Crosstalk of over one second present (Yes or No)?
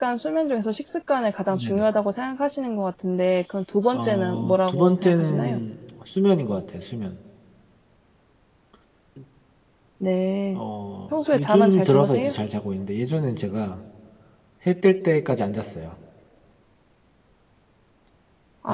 Yes